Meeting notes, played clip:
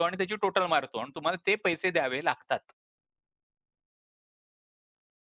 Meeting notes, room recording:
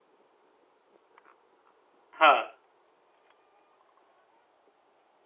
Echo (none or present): none